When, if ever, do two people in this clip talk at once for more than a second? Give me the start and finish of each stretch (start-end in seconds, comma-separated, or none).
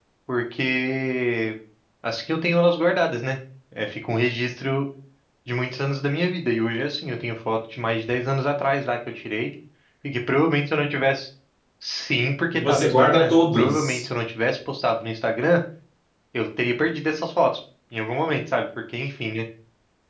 12.5-14.0